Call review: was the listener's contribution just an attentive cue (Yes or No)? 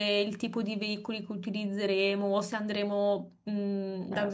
Yes